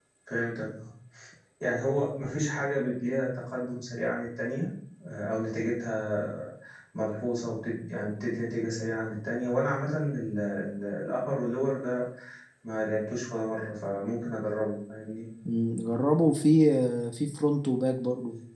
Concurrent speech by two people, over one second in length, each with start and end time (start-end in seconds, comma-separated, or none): none